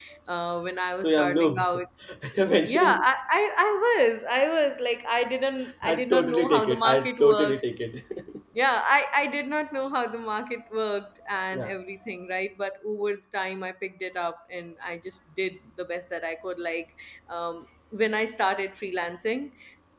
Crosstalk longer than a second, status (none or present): present